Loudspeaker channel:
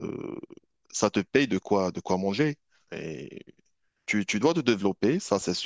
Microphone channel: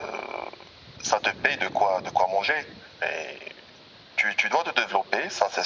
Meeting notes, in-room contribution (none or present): none